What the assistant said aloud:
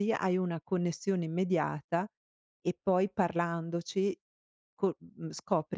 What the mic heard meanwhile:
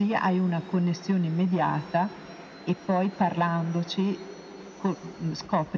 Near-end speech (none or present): none